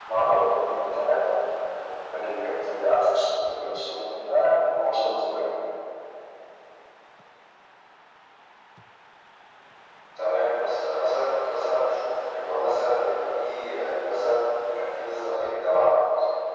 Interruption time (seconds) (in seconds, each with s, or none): none